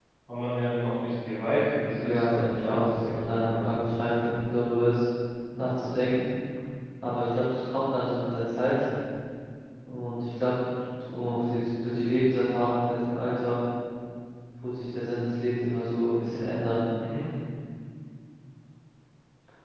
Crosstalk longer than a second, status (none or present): present